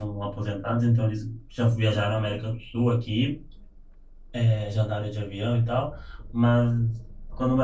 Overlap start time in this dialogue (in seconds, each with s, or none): none